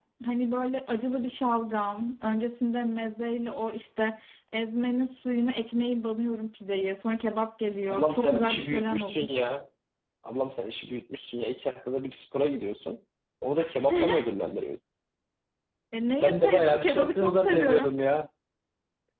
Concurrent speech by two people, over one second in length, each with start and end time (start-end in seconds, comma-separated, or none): 7.9-9.3, 16.2-17.9